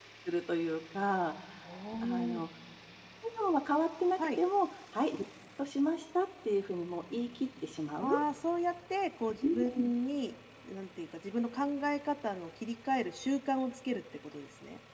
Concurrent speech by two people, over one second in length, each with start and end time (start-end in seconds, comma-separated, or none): none